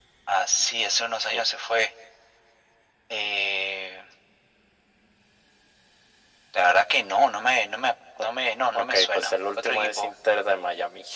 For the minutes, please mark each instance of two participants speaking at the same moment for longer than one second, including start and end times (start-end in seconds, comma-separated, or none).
8.7-10.2